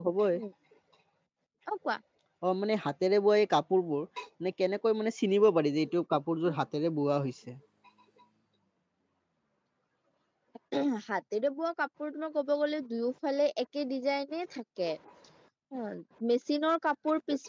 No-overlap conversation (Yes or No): Yes